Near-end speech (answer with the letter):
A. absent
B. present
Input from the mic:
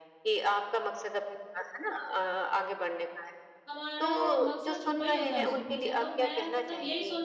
B